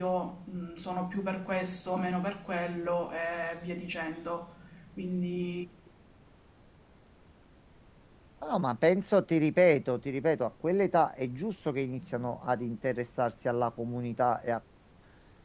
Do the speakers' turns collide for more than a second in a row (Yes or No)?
No